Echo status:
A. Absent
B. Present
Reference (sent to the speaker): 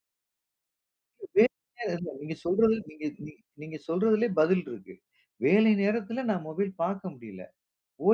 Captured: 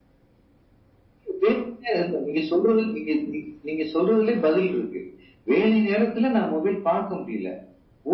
B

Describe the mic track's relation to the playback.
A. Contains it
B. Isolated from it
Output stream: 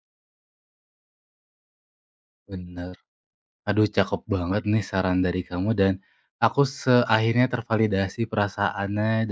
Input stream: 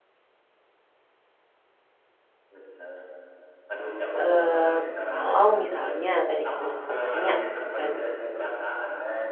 A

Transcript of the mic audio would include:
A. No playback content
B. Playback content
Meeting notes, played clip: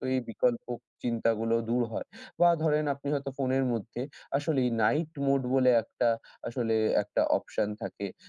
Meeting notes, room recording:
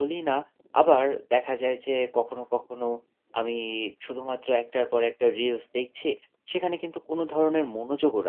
A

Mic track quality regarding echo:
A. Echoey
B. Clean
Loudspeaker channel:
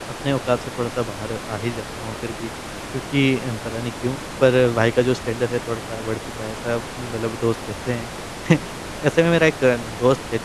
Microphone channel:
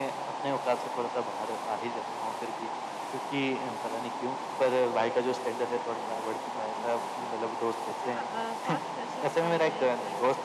A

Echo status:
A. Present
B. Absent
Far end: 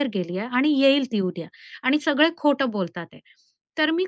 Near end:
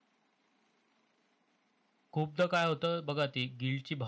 B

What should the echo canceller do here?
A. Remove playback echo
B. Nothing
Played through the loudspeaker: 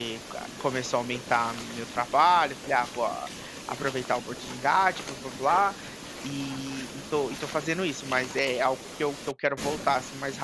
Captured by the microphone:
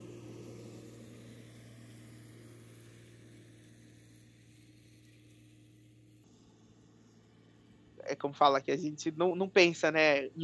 B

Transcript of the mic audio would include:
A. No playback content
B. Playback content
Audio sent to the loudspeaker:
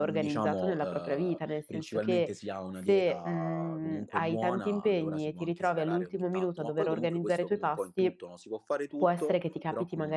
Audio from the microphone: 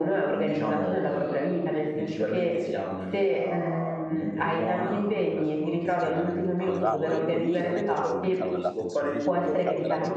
B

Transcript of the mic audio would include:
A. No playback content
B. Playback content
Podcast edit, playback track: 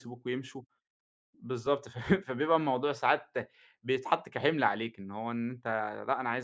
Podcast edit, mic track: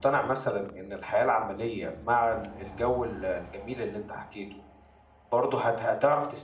A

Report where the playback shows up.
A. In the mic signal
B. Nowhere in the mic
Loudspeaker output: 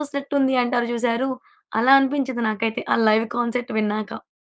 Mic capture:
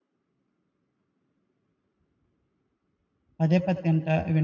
B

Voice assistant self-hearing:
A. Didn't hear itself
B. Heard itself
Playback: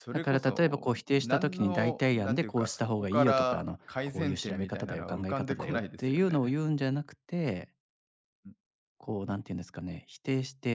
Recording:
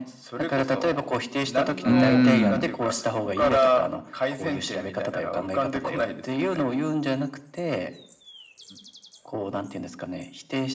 B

